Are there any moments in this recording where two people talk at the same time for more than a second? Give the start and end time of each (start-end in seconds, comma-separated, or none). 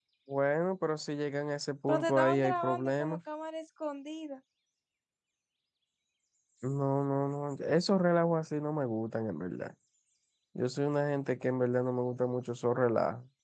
1.9-3.2